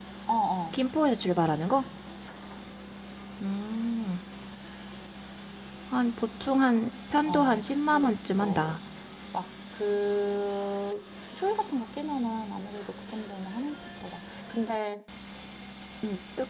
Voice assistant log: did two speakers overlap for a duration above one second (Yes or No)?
Yes